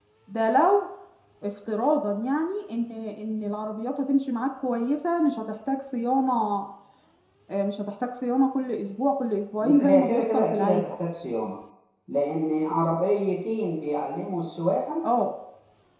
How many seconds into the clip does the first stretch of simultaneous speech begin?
9.6 s

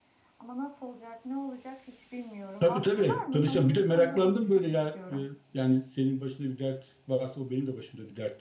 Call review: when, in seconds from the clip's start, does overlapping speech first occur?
2.6 s

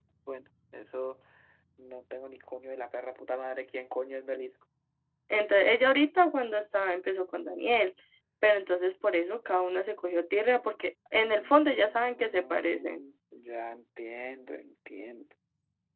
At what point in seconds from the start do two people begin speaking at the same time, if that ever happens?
11.3 s

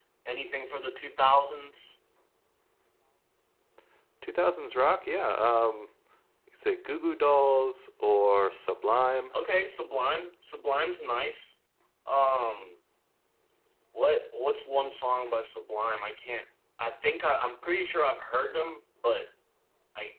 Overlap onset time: none

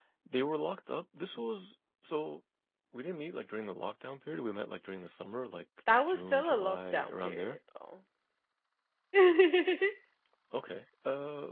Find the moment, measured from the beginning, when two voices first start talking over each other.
5.9 s

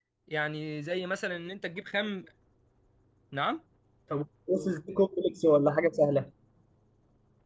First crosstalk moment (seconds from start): none

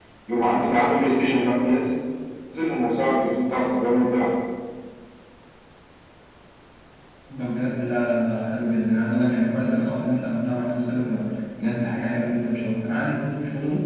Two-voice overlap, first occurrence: none

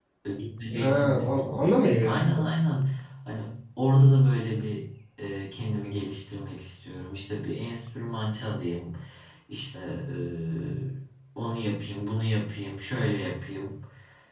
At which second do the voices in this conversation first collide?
0.8 s

